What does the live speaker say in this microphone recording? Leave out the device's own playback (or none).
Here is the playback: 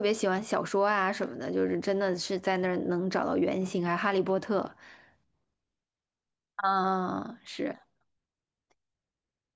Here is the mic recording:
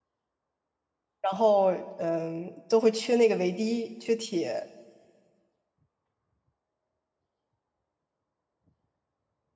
然后嗯，都会缺那个维 D，缺铁。